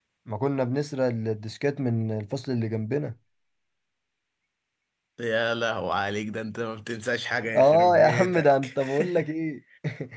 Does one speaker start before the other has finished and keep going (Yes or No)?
Yes